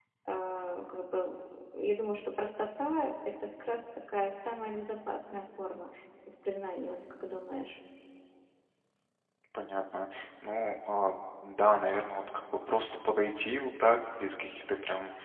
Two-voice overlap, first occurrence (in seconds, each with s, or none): none